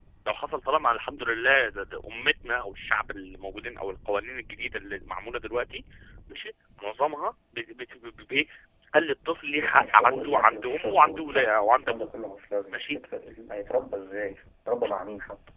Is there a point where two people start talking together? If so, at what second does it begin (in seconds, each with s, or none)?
9.6 s